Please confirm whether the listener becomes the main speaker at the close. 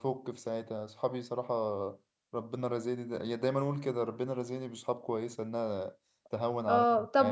Yes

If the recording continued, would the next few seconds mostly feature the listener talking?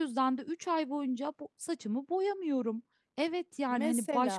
No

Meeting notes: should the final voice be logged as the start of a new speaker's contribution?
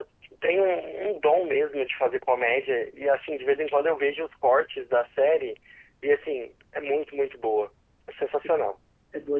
Yes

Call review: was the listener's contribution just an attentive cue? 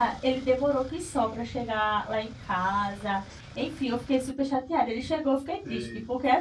Yes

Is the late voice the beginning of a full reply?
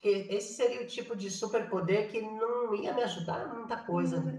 Yes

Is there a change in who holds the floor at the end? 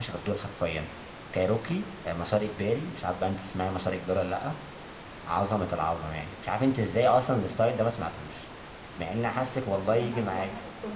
Yes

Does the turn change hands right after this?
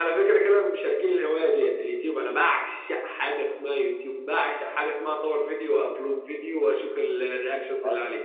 Yes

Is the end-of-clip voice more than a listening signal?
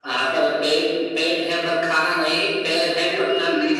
Yes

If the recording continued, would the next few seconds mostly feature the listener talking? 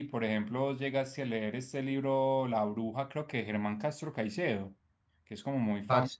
No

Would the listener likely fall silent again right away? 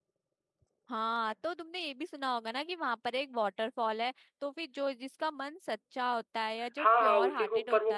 No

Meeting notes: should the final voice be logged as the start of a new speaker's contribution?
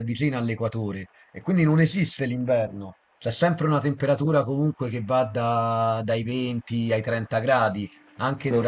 No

